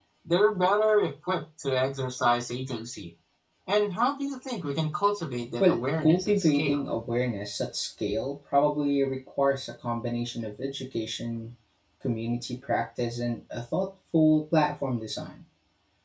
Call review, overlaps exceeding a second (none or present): present